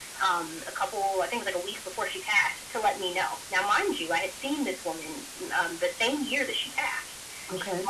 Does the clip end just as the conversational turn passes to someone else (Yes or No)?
No